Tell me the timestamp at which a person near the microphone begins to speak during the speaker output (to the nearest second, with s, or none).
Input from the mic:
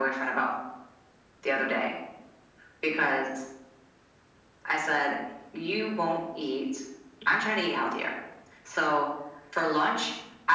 none